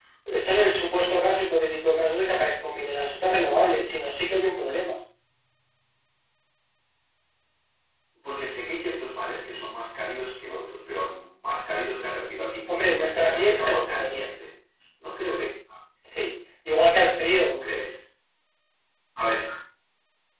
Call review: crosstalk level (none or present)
present